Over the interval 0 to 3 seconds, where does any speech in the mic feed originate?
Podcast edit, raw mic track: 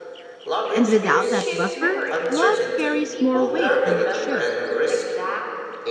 both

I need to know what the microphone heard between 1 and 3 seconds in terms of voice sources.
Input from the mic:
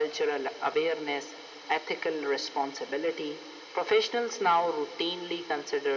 echo only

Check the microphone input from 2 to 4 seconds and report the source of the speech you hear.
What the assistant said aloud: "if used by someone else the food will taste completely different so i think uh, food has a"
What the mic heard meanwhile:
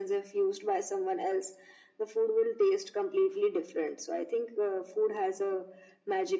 echo only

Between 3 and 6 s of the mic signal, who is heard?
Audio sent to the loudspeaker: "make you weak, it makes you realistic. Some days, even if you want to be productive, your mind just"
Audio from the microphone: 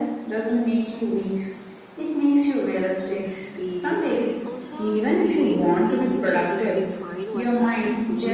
both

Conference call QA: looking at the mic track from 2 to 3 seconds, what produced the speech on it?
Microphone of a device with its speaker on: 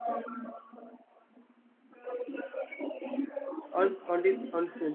echo only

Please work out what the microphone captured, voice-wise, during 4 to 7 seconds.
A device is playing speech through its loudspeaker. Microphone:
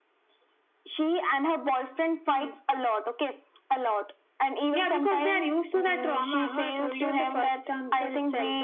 echo only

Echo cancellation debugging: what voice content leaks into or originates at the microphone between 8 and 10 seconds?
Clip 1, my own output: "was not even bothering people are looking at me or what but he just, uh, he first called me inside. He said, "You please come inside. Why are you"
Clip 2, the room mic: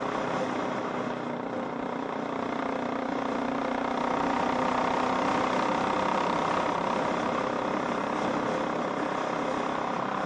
neither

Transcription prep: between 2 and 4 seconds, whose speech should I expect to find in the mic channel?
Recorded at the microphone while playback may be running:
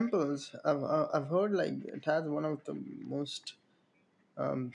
user only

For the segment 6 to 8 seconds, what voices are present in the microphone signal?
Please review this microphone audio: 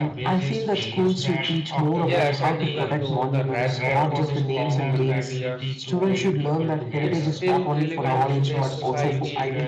both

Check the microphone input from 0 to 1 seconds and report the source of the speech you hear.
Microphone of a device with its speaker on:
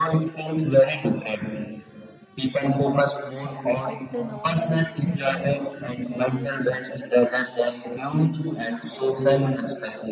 echo only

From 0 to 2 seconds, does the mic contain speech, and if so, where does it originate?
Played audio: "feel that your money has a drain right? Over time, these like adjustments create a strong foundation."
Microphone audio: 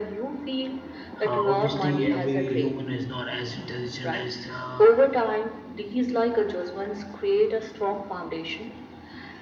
both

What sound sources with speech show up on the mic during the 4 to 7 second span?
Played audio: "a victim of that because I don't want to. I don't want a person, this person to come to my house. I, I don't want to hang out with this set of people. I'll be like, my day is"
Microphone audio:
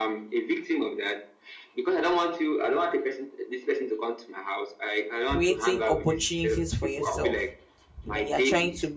both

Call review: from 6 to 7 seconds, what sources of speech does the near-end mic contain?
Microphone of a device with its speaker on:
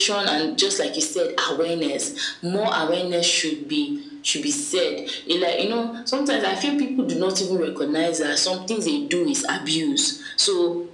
echo only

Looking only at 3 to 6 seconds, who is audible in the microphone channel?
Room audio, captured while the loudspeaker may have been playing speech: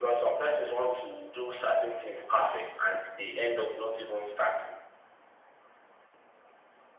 echo only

